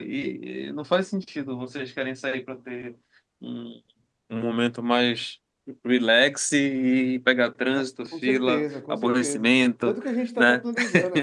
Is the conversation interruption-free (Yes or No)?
No